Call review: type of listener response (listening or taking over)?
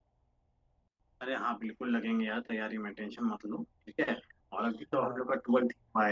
listening